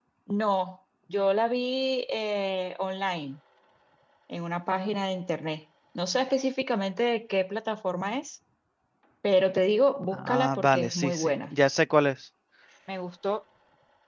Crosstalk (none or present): present